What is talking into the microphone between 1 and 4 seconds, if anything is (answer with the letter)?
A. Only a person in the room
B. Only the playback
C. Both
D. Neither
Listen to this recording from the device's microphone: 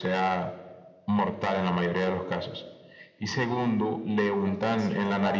B